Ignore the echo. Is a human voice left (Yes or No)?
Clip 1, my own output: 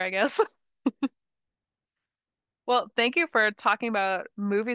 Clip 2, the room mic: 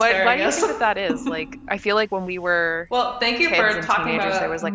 Yes